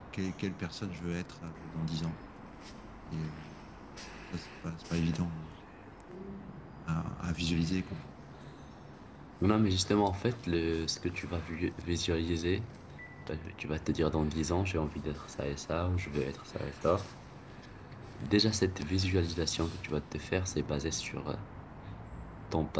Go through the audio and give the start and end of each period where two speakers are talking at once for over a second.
none

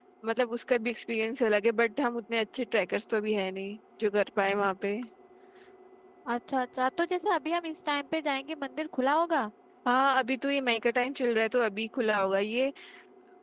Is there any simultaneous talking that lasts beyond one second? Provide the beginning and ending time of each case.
none

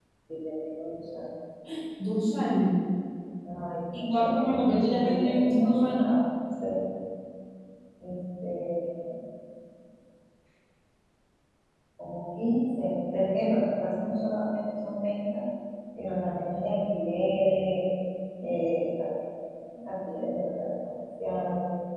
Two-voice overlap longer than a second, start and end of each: 4.1-6.1

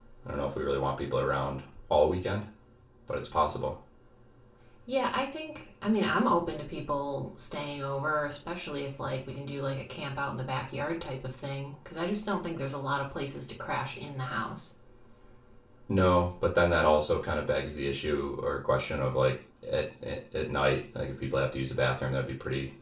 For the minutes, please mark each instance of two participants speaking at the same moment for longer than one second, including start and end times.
none

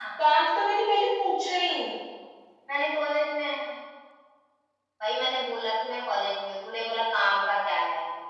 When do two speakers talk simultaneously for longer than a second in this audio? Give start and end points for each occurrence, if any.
none

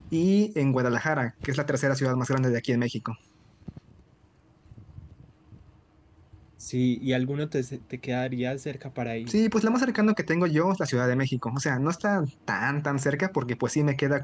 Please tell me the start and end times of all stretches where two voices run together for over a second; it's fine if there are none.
none

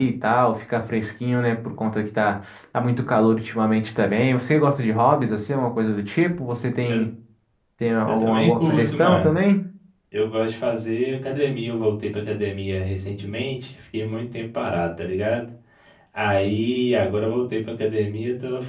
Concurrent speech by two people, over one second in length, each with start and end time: 8.1-9.3

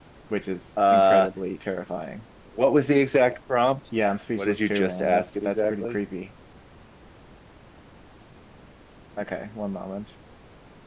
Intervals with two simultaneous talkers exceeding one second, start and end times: 4.4-6.0

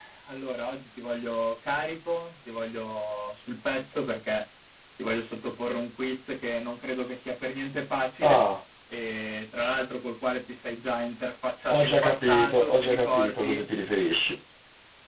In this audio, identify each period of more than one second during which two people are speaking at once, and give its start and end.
11.7-13.6

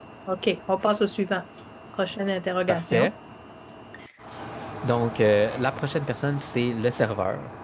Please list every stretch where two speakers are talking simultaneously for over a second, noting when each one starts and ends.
none

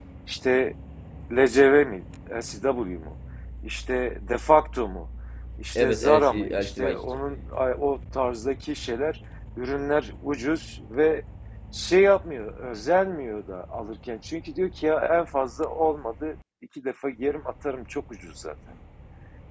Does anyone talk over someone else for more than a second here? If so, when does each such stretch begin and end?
5.8-7.0

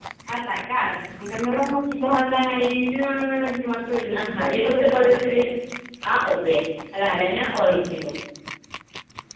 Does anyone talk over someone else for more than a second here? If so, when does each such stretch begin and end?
4.1-5.4

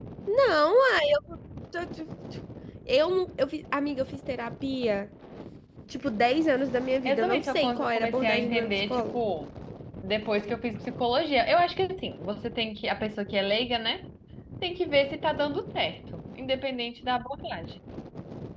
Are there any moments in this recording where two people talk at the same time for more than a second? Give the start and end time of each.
7.0-9.2

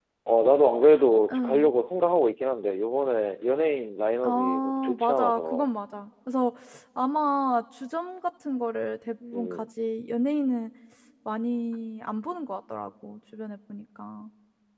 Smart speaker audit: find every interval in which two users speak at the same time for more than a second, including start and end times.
4.2-5.7

